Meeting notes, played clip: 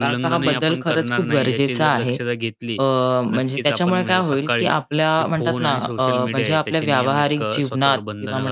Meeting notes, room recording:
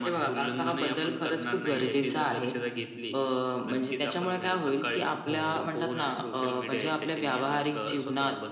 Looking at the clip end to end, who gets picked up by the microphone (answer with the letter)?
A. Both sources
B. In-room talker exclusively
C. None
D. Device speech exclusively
A